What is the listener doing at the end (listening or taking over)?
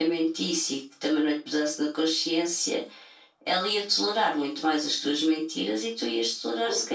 taking over